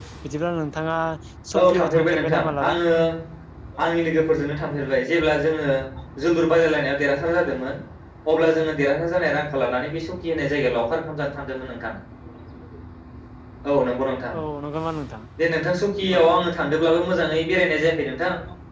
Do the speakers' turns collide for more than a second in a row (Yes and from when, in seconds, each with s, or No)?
Yes, from 1.6 s